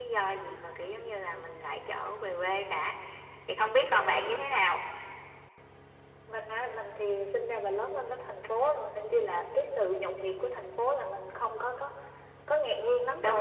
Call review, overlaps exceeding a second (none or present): none